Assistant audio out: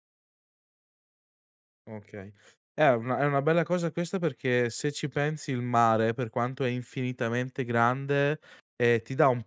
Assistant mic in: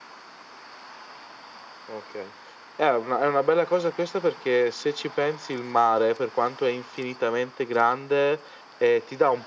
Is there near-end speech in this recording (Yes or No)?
No